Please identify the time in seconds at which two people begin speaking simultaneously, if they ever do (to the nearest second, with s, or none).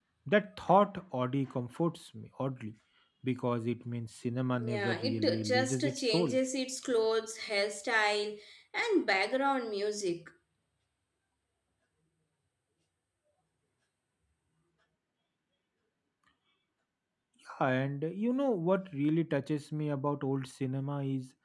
5 s